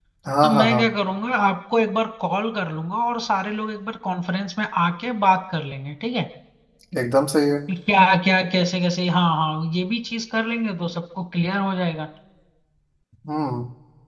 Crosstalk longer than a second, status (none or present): none